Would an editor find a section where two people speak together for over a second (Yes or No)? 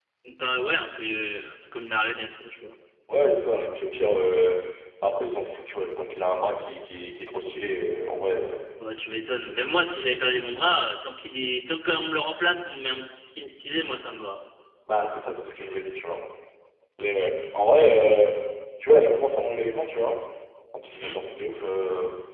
No